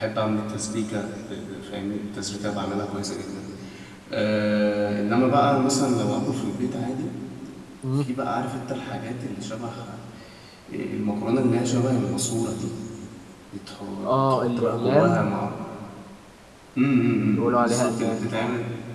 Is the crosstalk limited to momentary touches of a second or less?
No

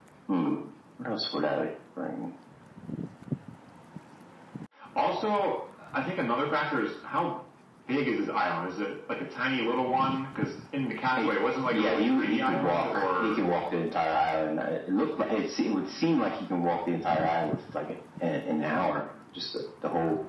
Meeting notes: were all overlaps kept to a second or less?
No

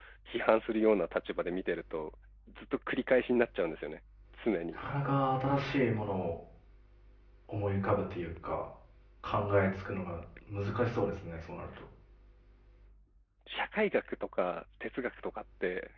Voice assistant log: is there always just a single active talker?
Yes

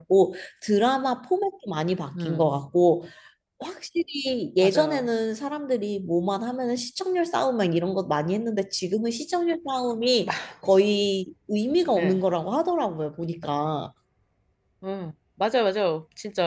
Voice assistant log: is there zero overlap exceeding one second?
Yes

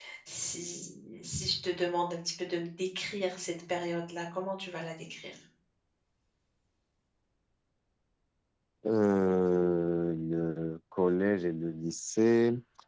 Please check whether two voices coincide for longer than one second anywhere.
No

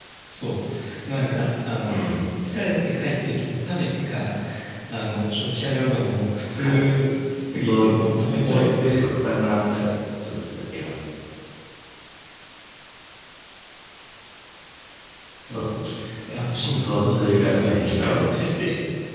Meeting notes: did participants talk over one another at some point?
Yes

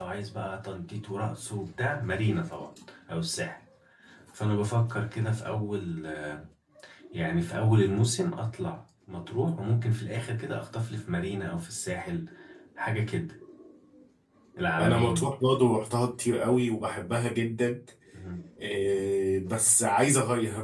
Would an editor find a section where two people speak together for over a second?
No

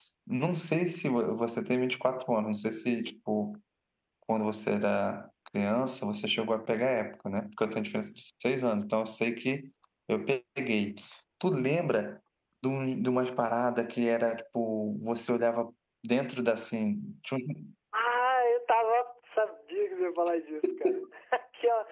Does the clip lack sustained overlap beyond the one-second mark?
Yes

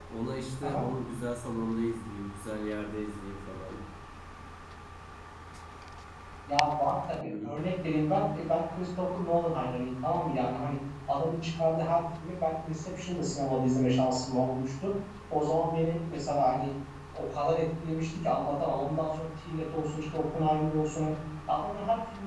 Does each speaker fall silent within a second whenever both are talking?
Yes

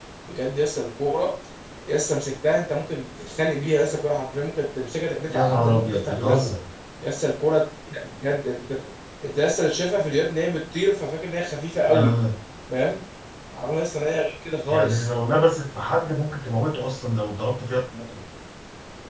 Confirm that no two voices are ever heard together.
No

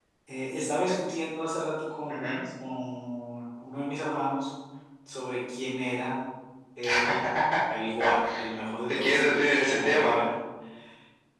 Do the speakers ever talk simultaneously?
Yes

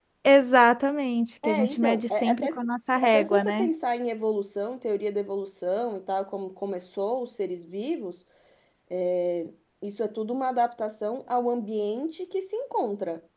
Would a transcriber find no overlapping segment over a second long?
No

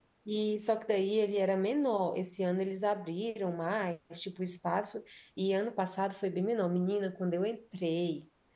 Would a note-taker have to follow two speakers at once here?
No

